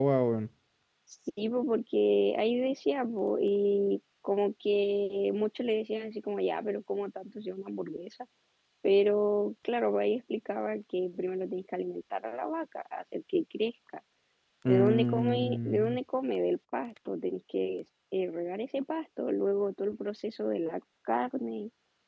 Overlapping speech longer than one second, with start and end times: 14.7-16.0

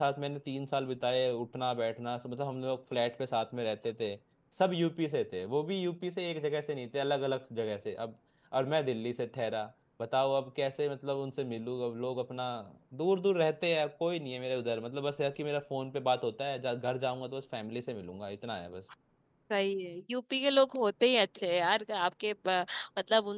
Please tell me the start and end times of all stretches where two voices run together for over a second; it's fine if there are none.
none

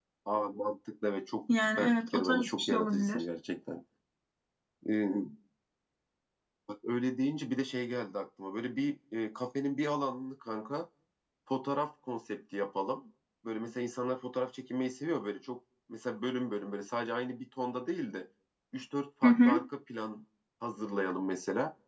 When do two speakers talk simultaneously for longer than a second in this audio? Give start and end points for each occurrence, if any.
1.8-3.2

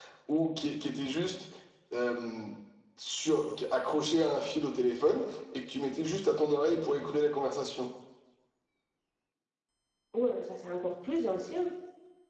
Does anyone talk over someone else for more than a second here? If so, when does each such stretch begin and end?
none

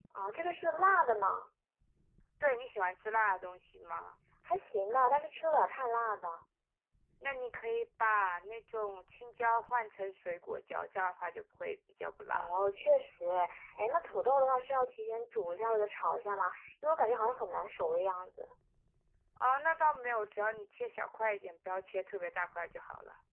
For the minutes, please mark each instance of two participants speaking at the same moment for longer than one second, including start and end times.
none

